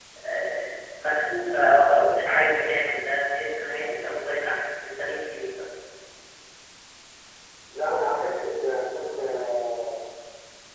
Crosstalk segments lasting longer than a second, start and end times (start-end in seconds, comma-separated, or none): 1.4-3.0